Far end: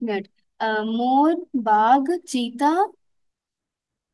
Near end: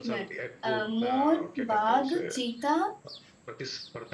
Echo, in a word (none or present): present